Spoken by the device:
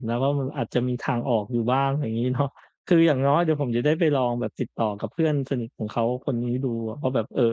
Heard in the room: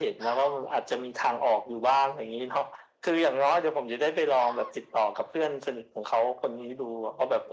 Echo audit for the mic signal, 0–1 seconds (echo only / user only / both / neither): echo only